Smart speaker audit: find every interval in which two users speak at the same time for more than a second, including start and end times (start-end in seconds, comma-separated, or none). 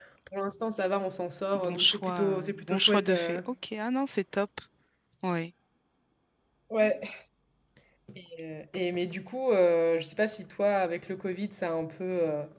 1.5-3.4